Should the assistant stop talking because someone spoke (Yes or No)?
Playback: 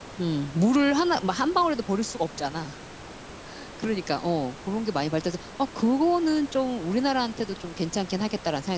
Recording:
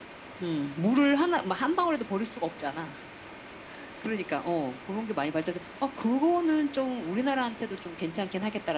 No